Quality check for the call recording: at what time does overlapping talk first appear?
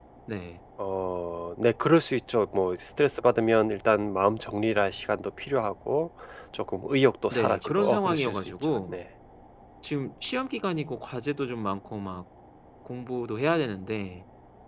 7.3 s

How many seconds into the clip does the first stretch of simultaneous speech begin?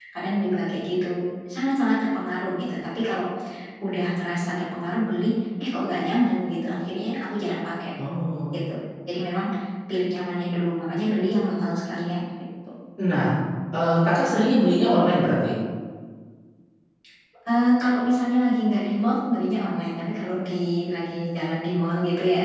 none

